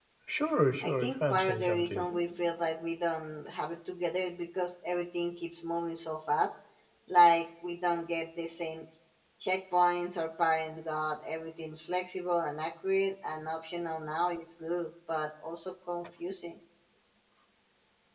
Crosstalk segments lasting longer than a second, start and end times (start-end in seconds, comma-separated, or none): 0.8-2.1